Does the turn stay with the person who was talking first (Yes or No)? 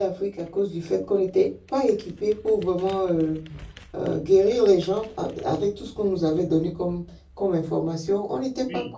No